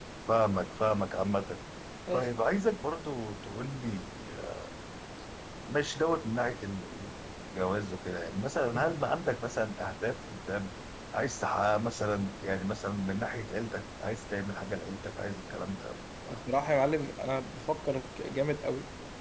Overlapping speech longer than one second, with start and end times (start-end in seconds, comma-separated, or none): none